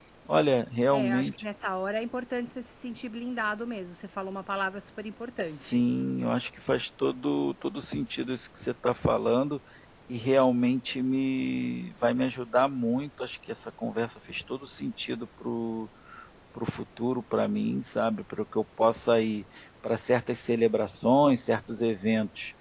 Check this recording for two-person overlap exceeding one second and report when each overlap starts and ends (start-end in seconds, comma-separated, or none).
none